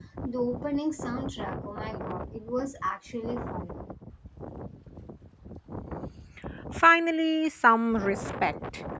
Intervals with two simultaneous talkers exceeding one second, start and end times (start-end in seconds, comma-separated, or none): none